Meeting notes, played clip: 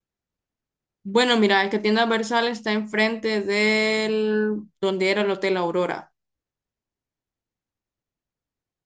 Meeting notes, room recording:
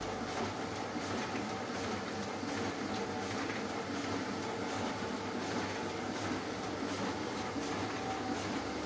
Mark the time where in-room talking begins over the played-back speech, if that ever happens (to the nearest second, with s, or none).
none